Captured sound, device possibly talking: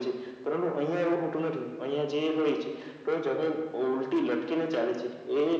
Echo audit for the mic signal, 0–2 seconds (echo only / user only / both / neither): echo only